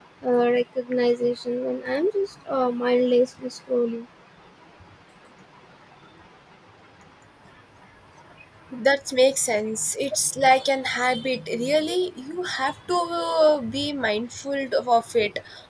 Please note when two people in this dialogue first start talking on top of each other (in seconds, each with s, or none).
none